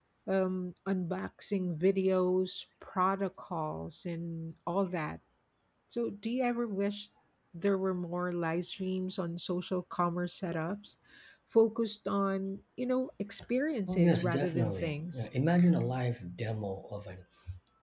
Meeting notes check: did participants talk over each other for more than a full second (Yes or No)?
Yes